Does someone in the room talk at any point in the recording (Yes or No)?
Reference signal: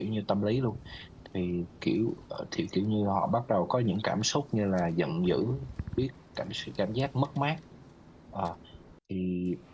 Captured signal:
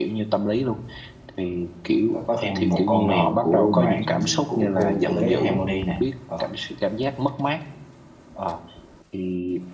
Yes